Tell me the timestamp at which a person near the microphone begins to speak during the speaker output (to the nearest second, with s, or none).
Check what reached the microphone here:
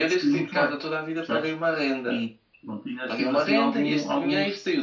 none